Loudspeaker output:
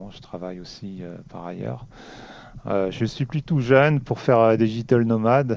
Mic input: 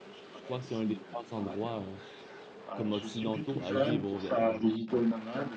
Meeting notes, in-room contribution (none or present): present